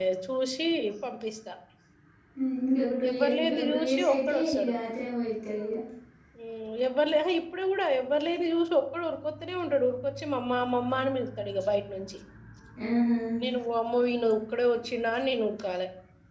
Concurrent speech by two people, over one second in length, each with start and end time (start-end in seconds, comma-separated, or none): 3.1-4.7